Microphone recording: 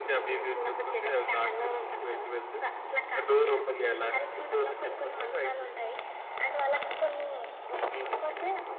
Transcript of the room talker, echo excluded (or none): none